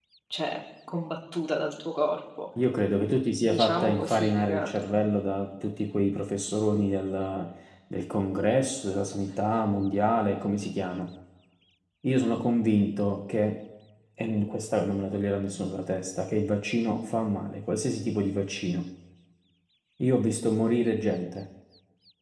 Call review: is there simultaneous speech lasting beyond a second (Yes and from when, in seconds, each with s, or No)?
Yes, from 3.4 s